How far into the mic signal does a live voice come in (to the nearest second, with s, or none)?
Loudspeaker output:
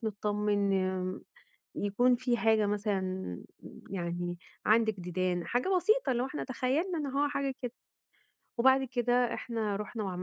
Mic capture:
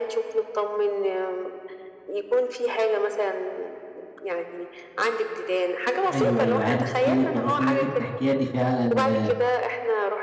6 s